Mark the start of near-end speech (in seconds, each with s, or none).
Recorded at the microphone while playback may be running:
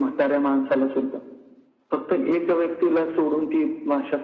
none